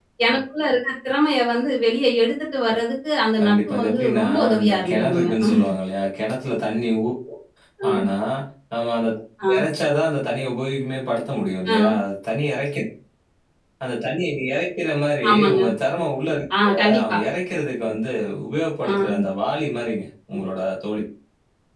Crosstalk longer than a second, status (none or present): present